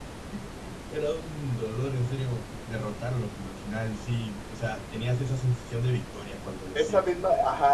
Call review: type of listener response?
taking over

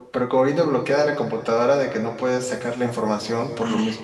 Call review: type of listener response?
listening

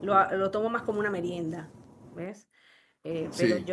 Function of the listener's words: listening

